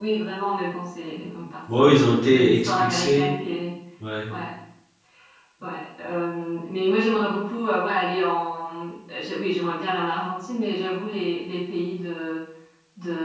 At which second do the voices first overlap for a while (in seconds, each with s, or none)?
1.7 s